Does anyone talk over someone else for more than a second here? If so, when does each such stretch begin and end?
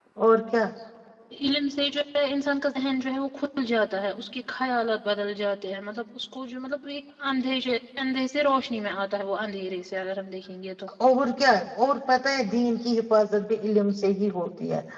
none

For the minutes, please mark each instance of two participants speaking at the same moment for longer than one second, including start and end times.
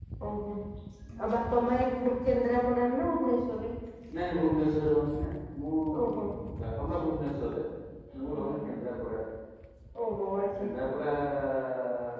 none

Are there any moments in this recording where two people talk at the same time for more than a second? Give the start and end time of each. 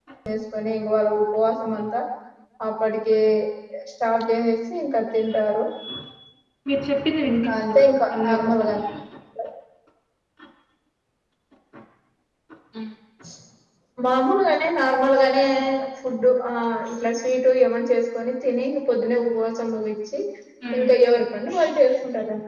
7.3-8.8

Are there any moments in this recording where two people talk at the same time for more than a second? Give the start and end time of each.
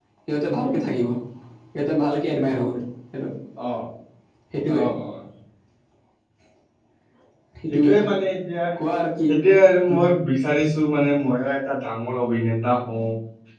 none

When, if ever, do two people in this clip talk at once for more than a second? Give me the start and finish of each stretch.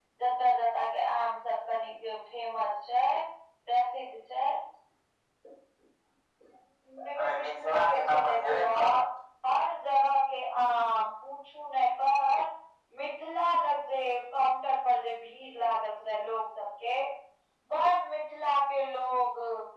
7.2-8.8

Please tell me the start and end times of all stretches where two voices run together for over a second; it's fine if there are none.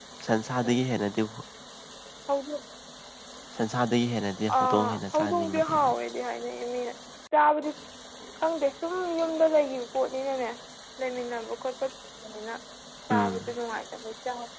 4.6-5.9

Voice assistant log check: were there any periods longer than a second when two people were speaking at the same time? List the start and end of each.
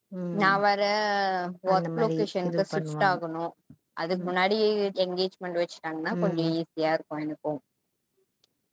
1.7-3.2

